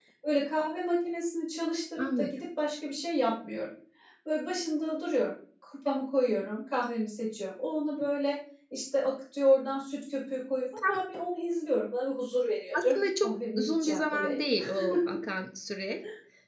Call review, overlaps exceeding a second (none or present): present